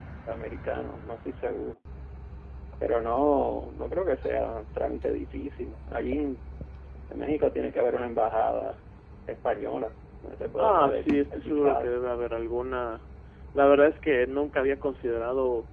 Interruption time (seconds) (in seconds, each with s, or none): 10.6 s